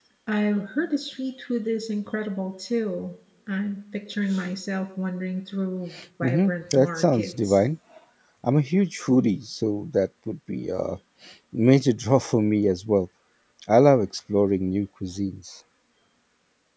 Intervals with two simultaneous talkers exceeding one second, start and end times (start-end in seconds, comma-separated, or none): 6.2-7.6